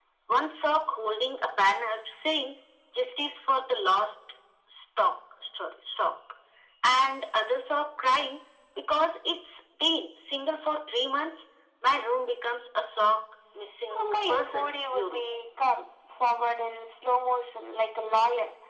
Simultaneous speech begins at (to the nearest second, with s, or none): 14 s